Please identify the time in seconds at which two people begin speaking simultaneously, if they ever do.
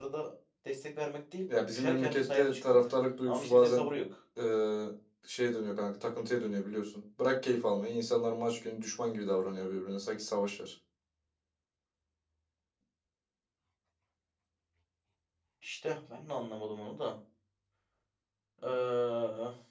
1.5 s

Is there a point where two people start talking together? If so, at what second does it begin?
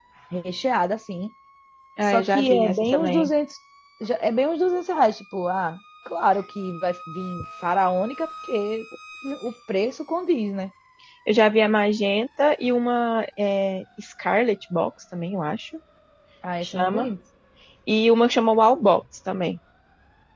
2.0 s

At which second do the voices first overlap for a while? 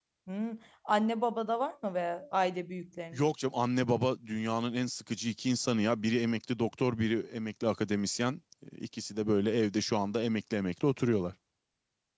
none

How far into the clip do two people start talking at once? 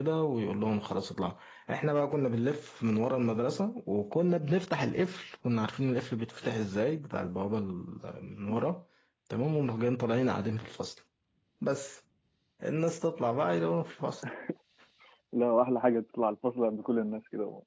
none

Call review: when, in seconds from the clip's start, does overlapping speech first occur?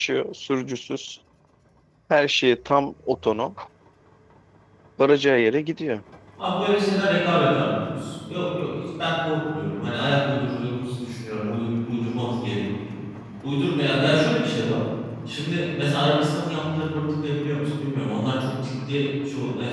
none

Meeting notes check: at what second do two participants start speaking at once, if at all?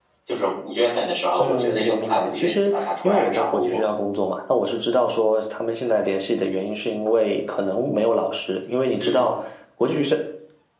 1.4 s

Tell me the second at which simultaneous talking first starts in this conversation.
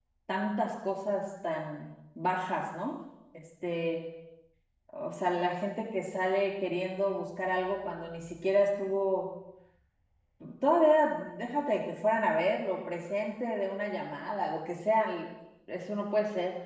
none

